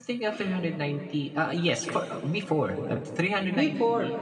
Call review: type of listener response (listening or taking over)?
listening